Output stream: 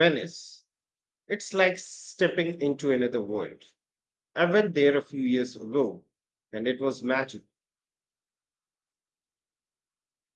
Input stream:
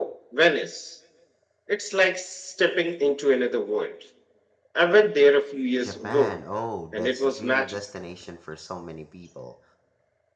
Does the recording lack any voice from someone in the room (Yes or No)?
No